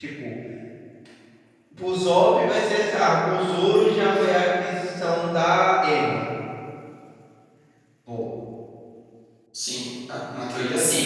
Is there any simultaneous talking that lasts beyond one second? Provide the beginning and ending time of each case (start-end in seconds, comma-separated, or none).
none